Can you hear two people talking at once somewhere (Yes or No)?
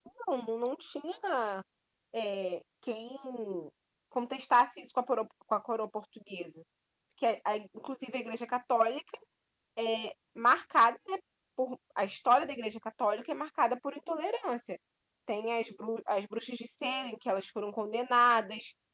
No